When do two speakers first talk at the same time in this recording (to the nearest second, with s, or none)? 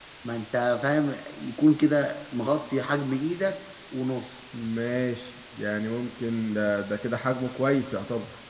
none